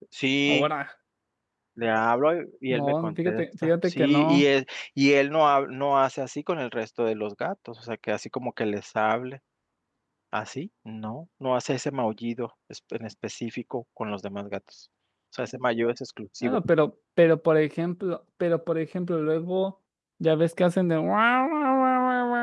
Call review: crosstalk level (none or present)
present